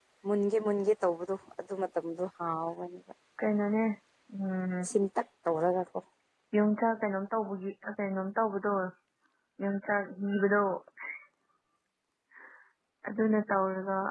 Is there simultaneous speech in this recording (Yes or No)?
No